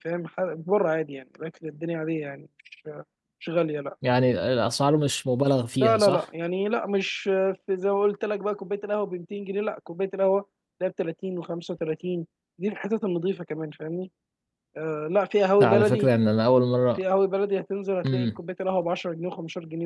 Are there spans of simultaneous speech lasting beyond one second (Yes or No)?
No